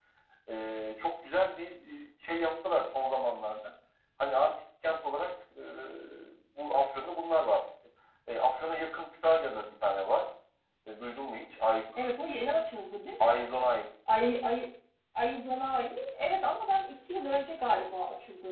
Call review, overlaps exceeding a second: none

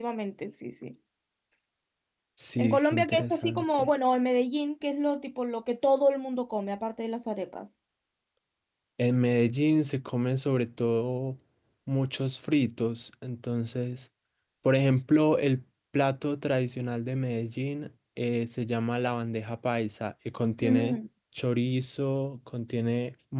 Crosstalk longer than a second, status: present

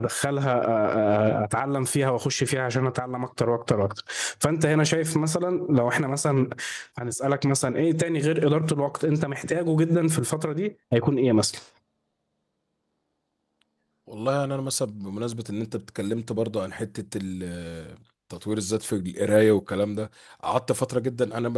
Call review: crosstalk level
none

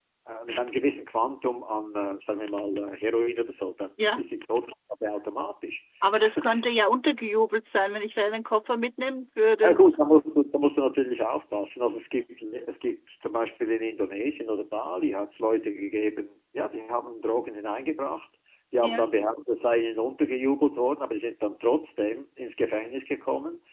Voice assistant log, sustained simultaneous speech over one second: none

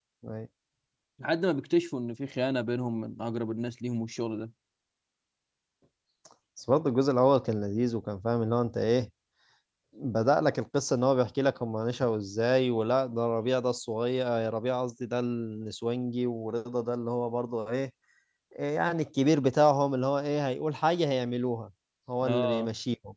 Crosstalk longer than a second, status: none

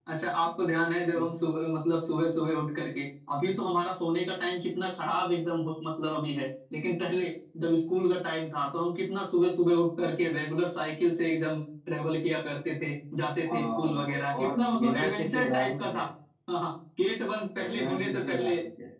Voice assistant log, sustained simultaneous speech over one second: present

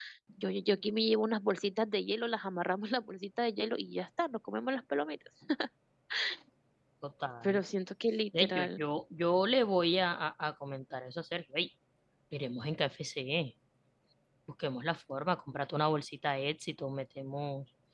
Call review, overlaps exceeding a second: none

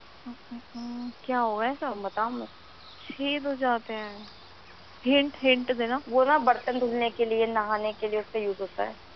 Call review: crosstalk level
none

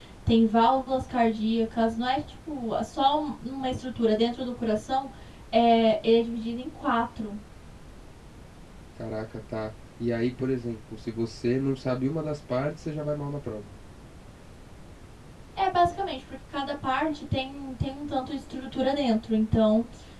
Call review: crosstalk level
none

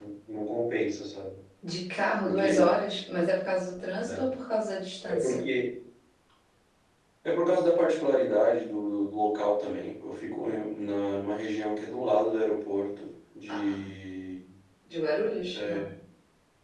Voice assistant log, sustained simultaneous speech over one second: none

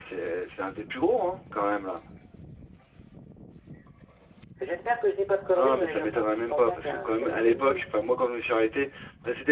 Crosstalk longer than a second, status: present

